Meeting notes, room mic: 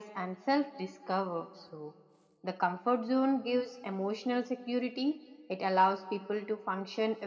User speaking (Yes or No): No